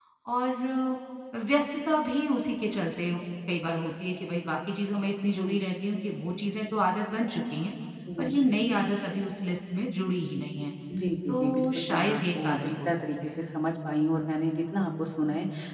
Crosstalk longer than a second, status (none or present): present